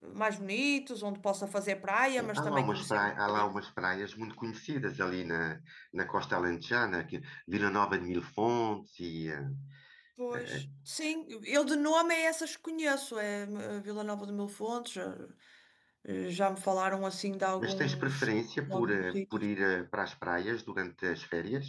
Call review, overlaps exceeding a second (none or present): present